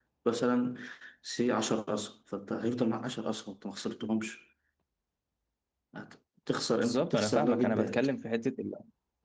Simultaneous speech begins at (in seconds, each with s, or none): 6.8 s